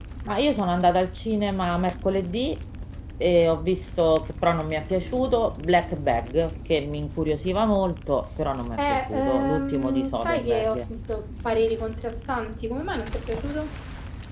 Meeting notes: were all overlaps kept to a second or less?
No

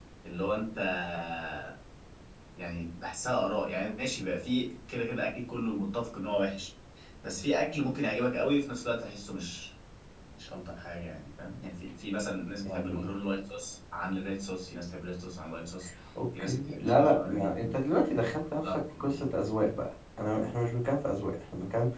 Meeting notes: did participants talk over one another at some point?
Yes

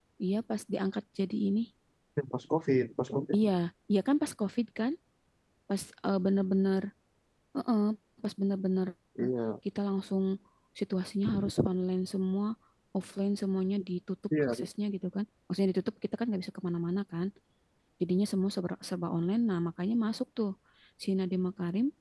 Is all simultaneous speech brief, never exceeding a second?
Yes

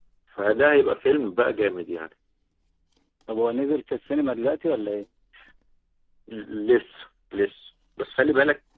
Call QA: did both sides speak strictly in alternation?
Yes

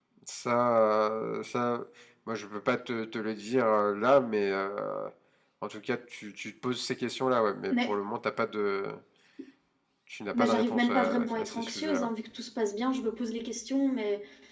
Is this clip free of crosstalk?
No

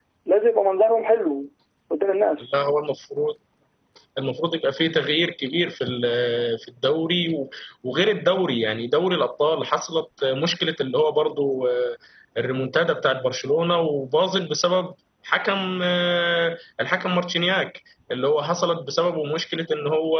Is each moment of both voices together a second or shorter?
Yes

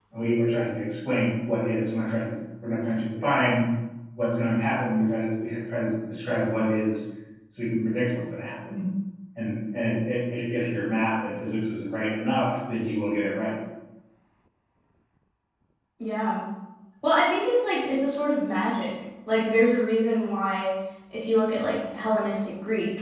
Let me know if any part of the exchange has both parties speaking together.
No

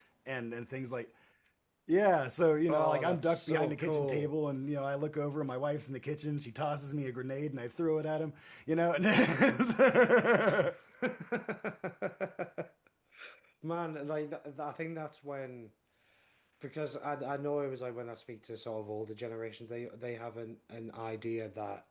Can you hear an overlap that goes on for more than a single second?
Yes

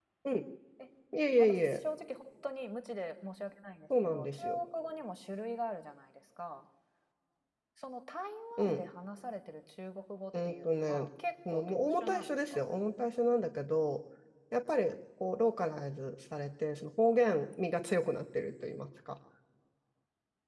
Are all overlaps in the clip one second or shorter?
No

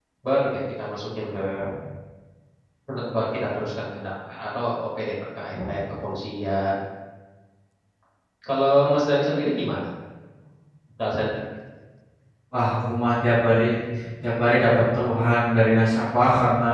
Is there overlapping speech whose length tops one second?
No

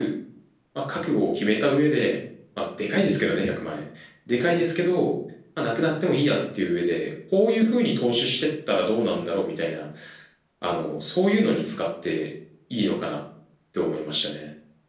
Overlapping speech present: No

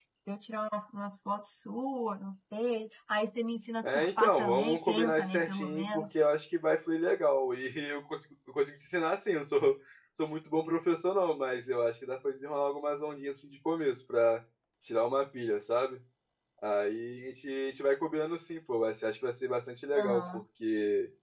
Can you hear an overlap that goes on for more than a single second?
Yes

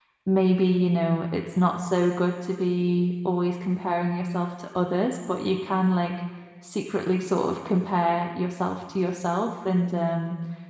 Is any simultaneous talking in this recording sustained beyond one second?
No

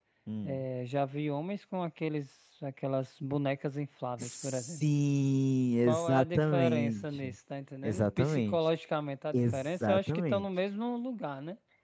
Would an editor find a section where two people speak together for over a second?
Yes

